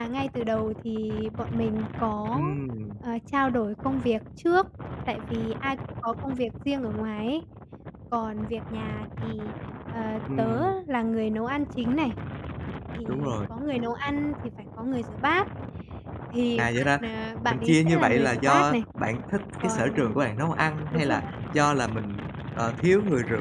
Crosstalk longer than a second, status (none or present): present